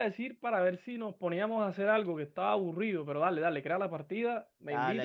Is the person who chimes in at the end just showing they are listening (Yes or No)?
No